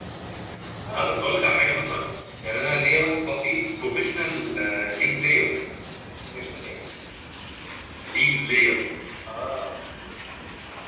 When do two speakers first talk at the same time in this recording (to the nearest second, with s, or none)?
none